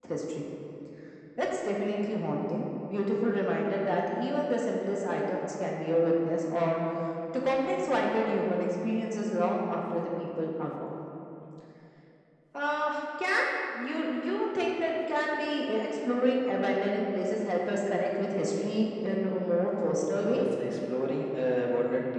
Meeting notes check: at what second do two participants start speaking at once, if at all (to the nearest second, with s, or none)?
none